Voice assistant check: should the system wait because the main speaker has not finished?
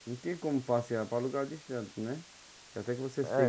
No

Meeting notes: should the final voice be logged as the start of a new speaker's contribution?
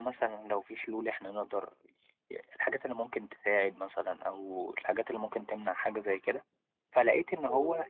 No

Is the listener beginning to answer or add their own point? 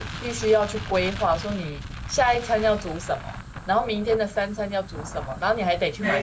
No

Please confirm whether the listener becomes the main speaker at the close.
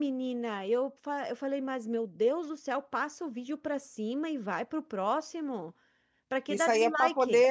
Yes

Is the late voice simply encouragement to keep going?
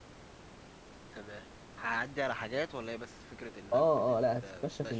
No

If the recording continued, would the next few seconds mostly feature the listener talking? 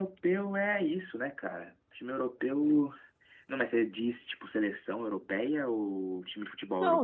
Yes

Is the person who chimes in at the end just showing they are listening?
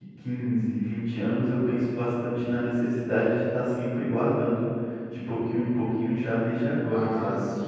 No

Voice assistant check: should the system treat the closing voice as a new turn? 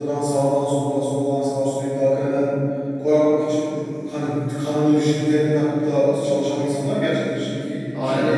Yes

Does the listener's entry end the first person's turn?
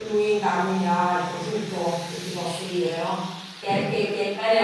No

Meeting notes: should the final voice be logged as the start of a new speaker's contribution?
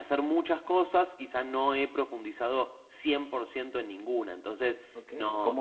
Yes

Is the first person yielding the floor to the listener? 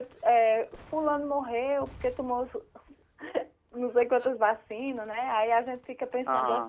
No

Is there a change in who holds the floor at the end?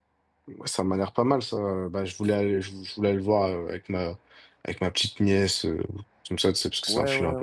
Yes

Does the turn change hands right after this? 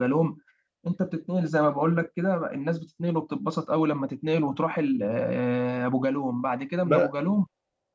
No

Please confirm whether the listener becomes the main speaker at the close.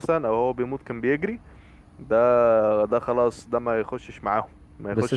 Yes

